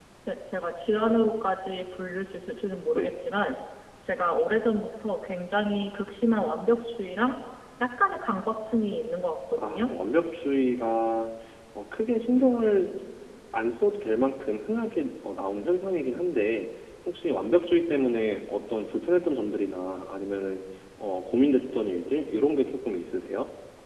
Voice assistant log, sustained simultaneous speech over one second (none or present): none